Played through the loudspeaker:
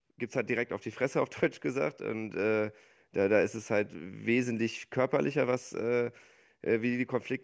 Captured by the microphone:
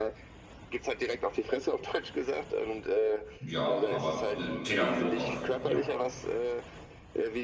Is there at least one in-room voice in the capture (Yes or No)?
Yes